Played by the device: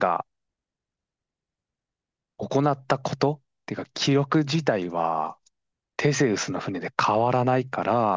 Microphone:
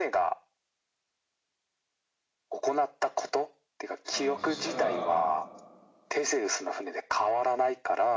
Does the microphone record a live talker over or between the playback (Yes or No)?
Yes